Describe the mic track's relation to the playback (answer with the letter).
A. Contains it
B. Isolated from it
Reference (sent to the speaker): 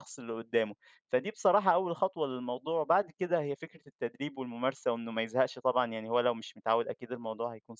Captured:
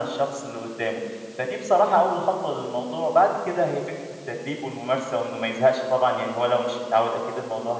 A